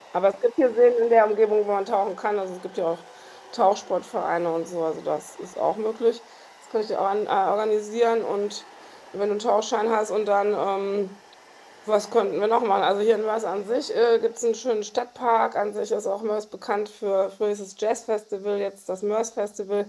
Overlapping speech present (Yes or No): No